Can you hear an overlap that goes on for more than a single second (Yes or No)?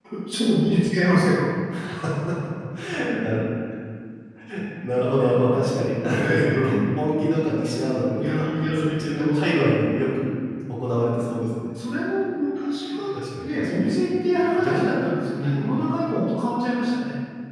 Yes